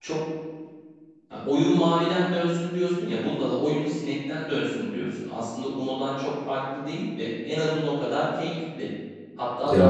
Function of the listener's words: listening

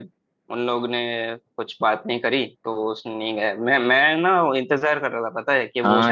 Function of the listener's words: taking over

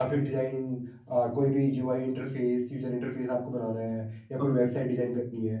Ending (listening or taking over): listening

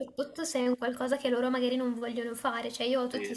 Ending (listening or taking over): listening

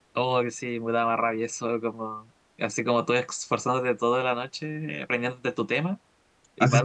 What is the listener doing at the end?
taking over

